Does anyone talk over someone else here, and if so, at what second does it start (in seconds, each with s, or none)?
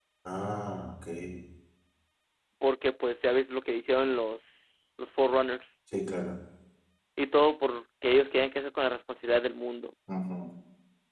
none